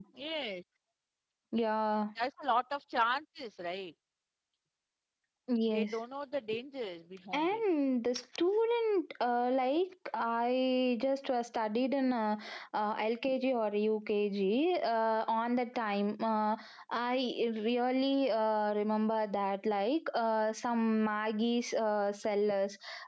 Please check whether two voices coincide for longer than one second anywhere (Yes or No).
No